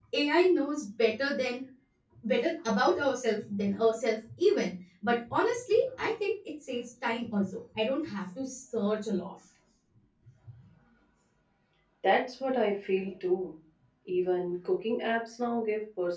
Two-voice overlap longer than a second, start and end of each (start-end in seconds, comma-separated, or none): none